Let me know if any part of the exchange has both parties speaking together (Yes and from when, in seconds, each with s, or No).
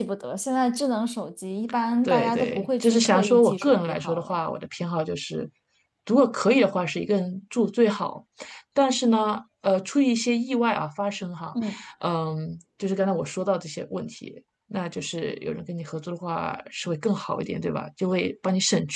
Yes, from 2.0 s